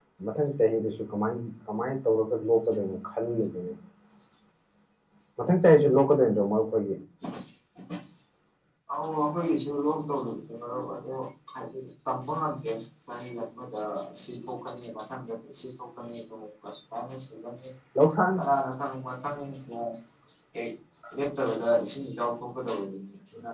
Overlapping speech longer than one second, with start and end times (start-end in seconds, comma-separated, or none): none